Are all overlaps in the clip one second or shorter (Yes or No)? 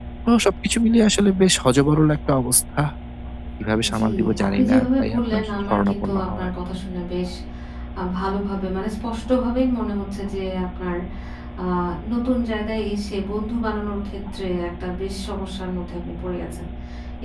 No